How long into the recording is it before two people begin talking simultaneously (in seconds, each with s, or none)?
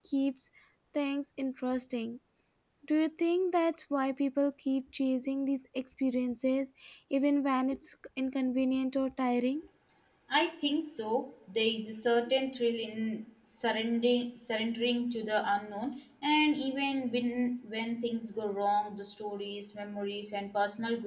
none